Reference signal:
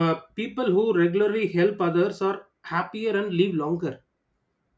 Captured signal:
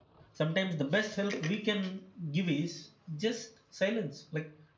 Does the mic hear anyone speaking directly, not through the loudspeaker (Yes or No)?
Yes